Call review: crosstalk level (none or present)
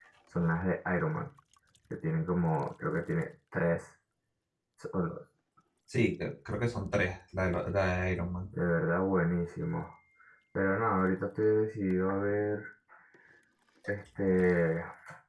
none